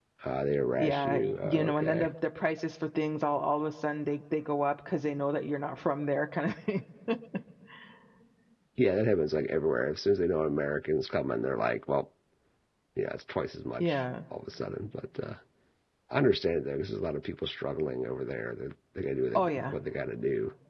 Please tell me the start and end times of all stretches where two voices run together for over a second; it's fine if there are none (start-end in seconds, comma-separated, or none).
0.8-2.1